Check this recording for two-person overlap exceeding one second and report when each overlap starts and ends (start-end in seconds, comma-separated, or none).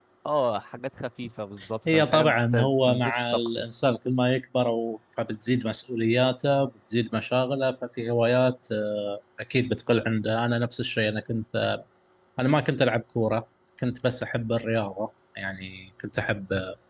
1.9-3.6